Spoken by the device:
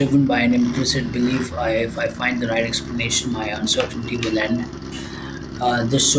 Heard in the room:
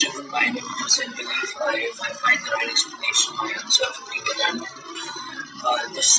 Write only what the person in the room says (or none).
none